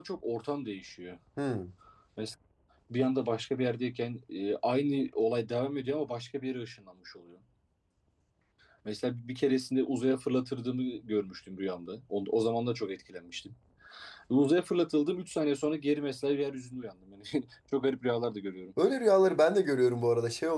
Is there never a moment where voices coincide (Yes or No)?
Yes